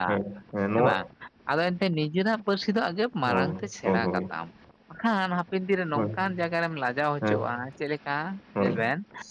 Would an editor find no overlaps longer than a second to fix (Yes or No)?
Yes